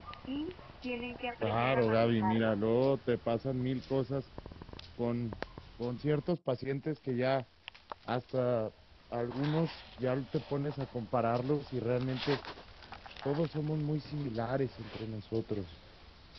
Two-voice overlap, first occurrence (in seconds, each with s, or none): 1.4 s